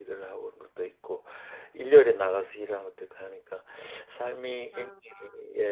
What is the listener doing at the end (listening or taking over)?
listening